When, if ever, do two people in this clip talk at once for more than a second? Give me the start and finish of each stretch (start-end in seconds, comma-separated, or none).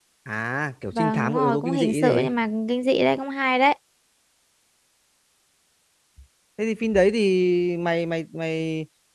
0.9-2.3